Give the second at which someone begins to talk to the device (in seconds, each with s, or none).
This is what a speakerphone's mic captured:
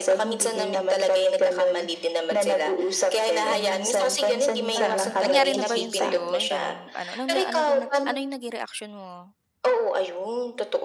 4.8 s